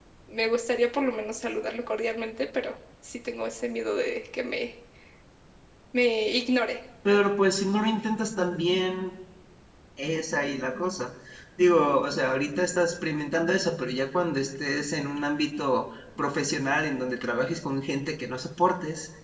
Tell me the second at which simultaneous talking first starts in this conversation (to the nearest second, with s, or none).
none